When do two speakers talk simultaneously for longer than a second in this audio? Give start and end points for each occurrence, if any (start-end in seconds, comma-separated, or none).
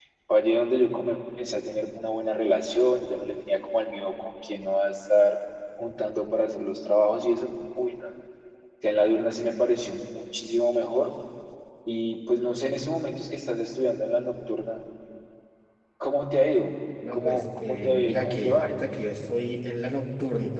17.1-18.7